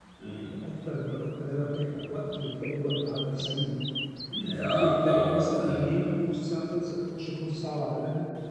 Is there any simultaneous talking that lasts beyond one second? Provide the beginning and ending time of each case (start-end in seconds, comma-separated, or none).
4.6-6.1